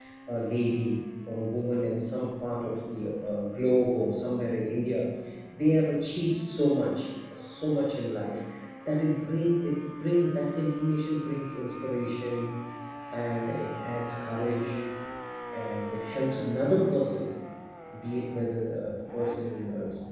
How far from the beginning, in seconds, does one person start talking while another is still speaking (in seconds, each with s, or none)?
none